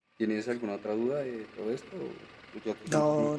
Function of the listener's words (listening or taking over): taking over